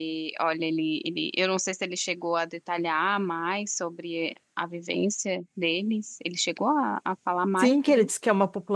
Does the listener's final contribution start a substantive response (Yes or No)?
Yes